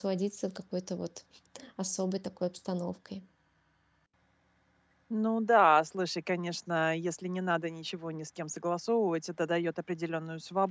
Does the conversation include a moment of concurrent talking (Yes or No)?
No